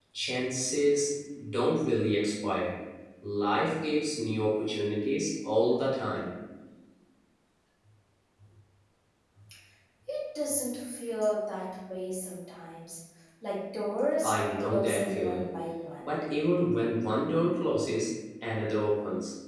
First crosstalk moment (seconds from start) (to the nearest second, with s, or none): 14 s